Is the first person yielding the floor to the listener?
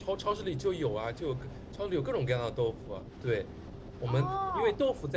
No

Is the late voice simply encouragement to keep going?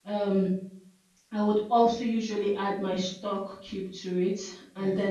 Yes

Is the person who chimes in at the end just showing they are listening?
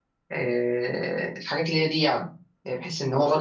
Yes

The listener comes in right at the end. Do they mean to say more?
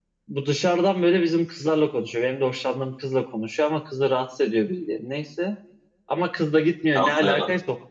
No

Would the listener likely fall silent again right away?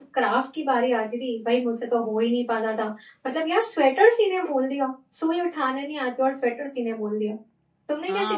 No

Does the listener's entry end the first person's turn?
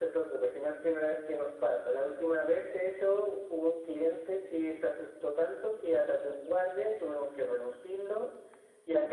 No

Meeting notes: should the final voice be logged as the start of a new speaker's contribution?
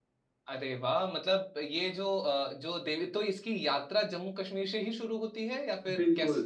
Yes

